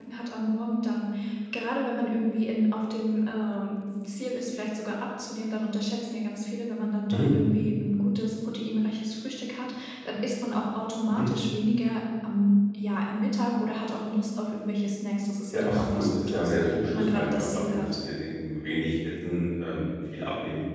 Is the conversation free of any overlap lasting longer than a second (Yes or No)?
No